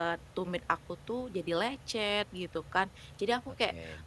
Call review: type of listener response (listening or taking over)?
listening